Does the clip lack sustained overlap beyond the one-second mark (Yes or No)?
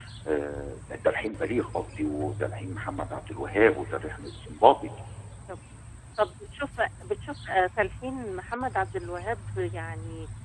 Yes